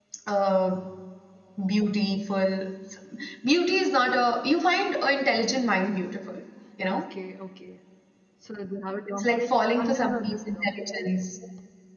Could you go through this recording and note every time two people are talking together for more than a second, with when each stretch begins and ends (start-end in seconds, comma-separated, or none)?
9.2-10.4